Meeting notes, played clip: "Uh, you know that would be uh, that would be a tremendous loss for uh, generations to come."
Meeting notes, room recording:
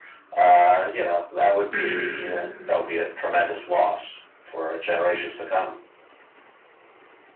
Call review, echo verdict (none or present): present